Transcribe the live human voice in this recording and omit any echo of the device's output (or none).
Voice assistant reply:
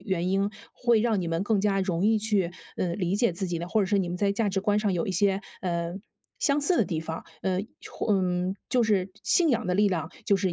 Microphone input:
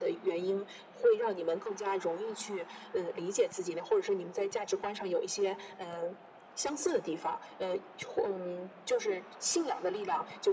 none